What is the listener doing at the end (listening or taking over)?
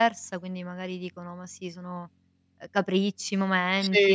listening